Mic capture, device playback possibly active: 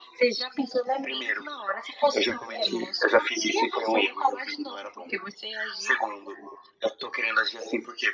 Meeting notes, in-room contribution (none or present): none